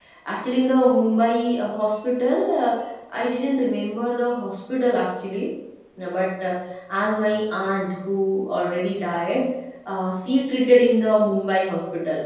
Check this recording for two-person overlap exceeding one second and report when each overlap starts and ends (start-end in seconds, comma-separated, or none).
none